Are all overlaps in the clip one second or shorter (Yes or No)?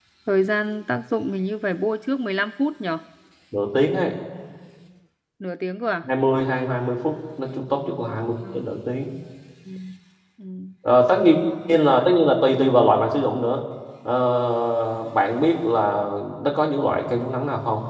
Yes